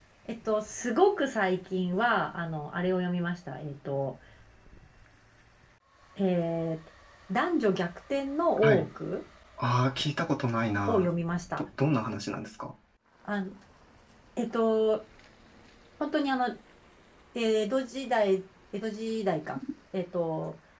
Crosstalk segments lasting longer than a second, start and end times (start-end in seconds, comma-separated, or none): none